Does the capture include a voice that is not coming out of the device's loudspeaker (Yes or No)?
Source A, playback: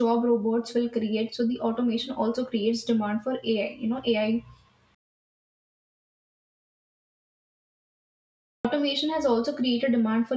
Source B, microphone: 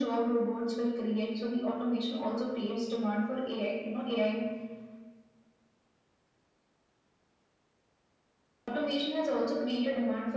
No